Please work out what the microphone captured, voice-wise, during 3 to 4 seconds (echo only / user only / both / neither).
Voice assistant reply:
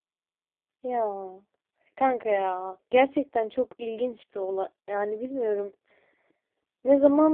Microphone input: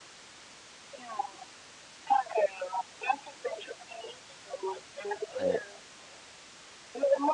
echo only